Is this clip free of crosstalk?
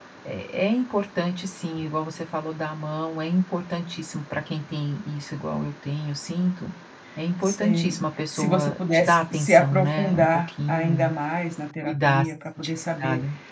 No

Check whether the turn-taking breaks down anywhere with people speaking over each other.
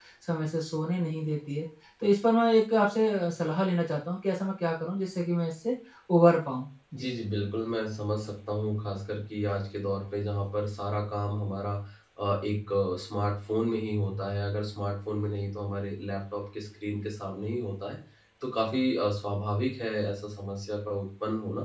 No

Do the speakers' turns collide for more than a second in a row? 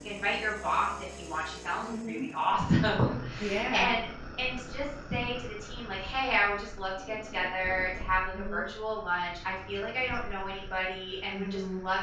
No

